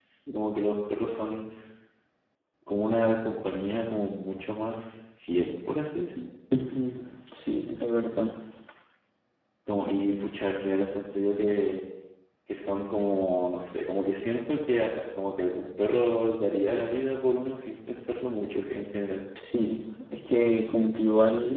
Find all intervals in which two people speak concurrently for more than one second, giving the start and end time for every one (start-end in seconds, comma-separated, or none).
none